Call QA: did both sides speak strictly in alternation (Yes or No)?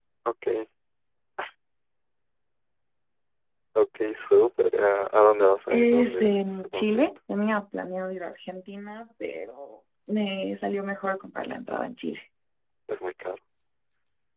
No